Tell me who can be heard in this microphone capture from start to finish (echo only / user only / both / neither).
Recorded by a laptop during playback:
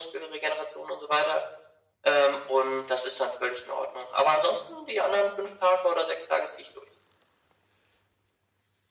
echo only